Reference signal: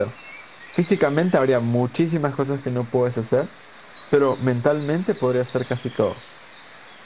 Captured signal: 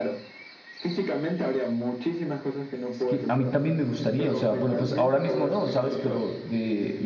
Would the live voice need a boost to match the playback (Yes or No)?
No